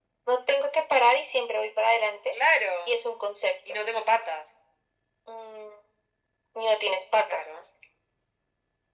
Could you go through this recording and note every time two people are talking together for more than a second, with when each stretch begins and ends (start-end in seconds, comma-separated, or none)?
none